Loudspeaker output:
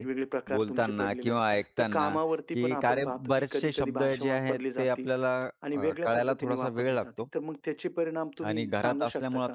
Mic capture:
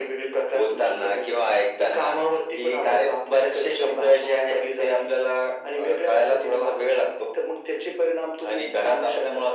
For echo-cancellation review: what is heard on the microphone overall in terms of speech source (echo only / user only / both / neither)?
echo only